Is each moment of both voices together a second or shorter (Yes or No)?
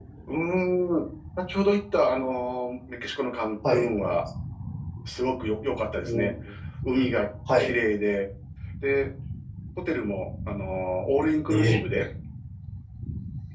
Yes